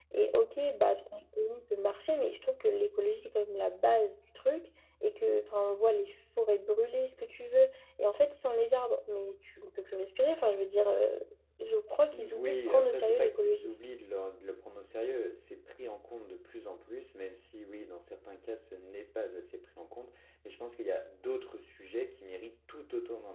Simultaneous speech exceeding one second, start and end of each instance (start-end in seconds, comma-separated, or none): 12.1-13.7